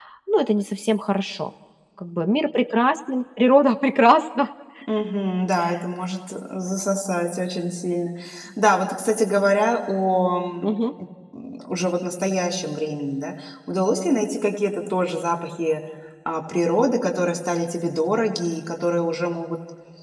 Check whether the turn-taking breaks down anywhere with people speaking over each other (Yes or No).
No